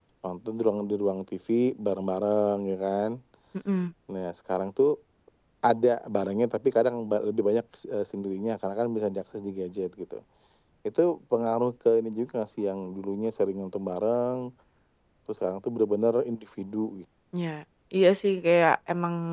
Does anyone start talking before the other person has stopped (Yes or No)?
No